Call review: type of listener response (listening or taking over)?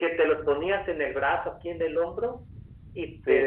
listening